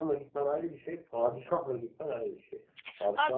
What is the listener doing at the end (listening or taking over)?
taking over